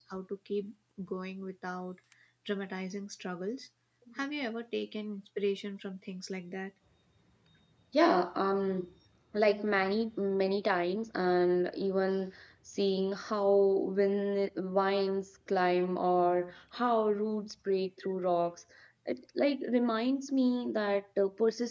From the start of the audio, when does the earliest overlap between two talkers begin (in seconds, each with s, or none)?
none